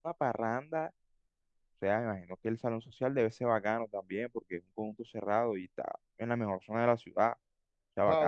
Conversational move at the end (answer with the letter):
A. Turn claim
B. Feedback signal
A